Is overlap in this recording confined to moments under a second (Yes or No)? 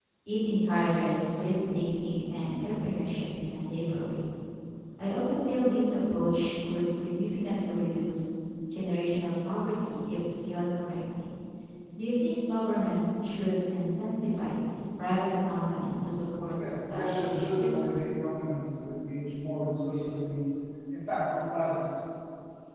No